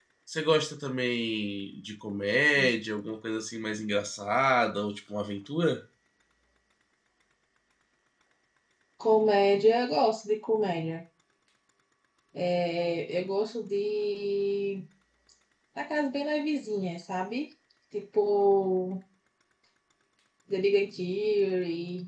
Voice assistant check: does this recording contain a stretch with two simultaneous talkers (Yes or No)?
No